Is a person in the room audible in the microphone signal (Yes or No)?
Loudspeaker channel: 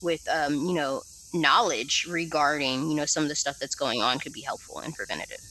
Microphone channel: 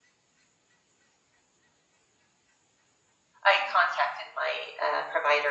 Yes